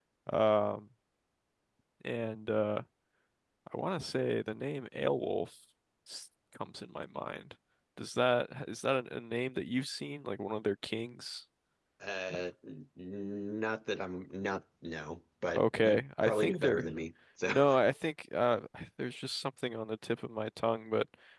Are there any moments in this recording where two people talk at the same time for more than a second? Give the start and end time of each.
15.6-16.9

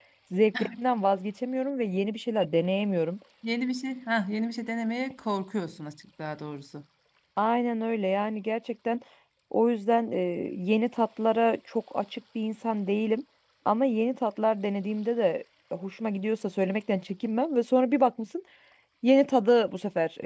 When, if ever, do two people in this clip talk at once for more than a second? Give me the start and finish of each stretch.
none

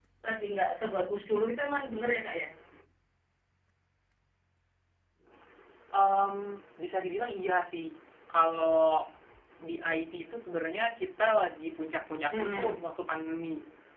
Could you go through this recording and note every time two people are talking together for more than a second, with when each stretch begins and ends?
none

